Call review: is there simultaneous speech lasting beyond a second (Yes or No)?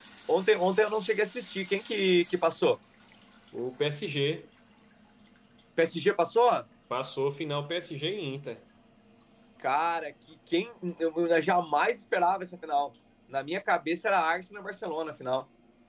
No